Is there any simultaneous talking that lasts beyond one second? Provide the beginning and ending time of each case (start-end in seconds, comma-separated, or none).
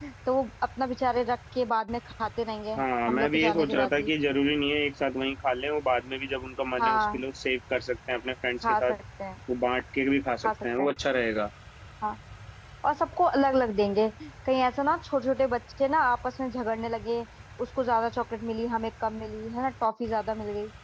2.8-4.1